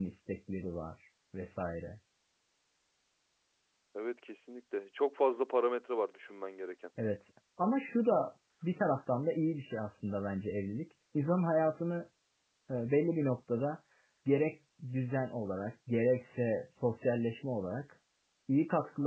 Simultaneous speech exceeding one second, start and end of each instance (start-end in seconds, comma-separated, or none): none